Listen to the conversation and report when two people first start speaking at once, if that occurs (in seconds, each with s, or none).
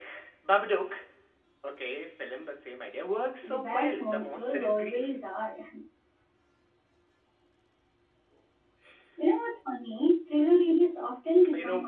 3.4 s